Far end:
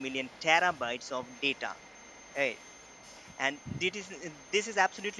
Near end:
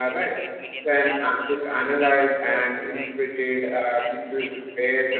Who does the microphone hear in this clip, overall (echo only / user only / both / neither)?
both